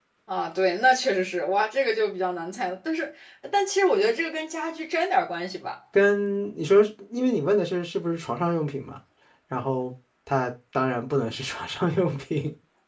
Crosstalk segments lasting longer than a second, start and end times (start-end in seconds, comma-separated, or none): none